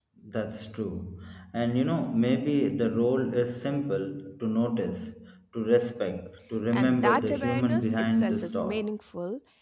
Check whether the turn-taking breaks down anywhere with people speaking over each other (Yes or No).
Yes